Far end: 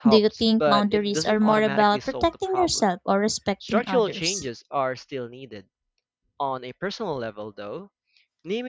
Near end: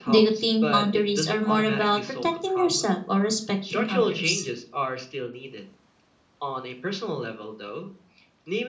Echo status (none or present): present